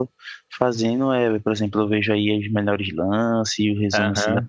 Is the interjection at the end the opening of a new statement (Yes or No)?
Yes